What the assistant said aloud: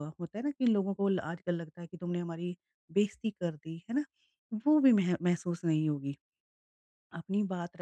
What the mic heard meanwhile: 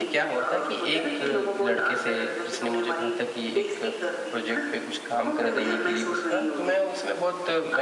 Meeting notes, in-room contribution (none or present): present